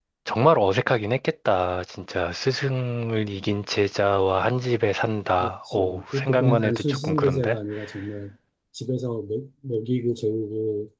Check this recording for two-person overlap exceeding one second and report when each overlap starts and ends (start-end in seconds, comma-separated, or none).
5.4-7.6